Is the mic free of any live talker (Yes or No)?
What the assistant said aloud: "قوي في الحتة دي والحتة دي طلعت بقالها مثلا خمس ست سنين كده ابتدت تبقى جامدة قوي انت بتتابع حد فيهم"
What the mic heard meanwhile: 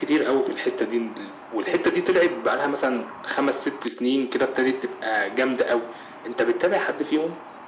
Yes